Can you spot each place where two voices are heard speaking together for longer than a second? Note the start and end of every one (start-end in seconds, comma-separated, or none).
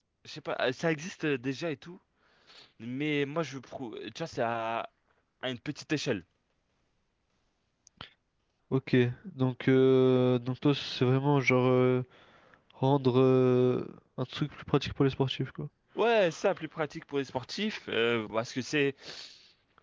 none